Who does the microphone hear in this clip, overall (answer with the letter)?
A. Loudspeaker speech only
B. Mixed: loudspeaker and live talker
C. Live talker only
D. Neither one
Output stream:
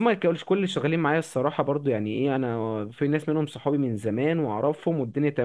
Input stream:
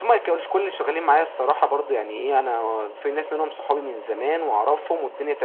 A